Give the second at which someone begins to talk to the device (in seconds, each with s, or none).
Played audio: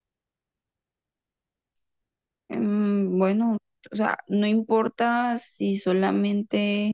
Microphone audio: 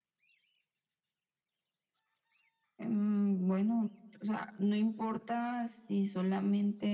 none